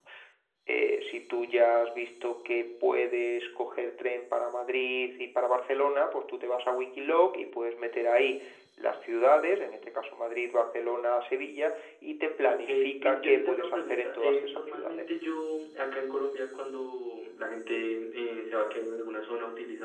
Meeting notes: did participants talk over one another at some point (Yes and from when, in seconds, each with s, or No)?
Yes, from 12.5 s